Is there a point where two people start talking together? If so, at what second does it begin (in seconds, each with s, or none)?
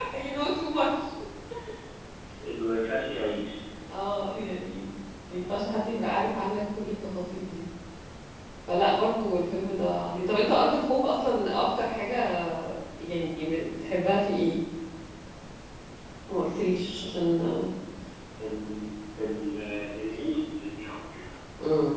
none